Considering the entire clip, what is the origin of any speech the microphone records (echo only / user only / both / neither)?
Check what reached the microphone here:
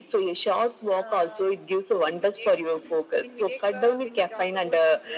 both